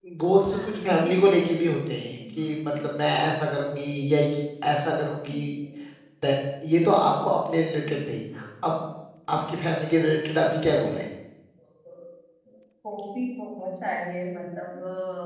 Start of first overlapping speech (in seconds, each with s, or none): 0.5 s